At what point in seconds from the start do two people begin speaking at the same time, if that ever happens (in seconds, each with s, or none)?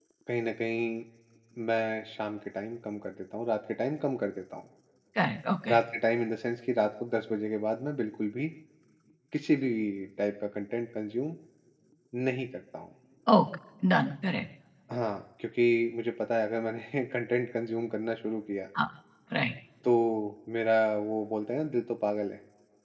none